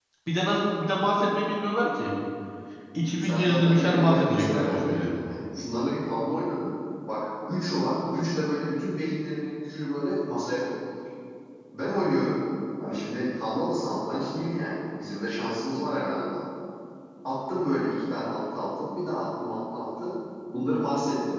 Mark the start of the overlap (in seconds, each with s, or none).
3.2 s